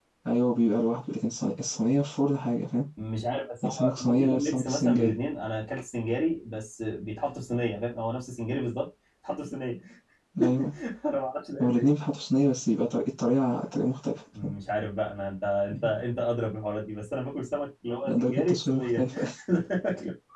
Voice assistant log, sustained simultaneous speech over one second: present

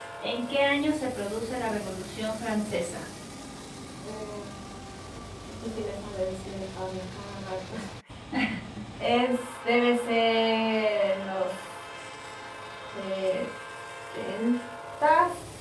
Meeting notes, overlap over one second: none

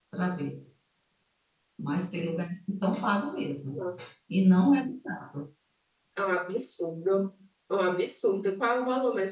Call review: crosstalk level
none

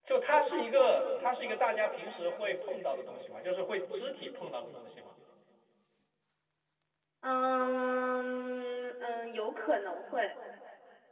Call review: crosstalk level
none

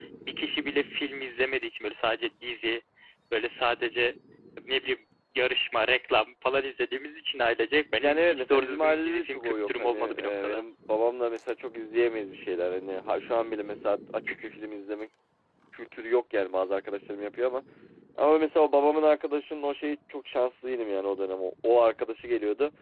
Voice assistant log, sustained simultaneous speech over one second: present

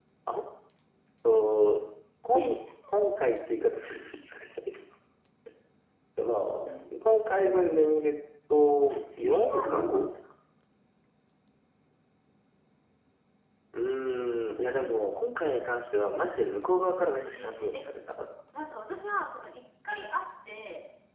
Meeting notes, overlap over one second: present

